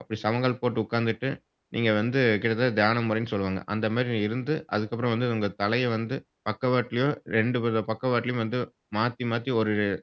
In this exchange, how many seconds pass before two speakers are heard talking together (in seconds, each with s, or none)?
none